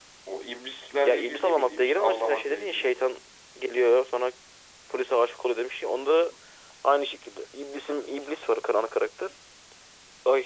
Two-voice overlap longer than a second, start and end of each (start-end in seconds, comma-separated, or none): 1.0-2.9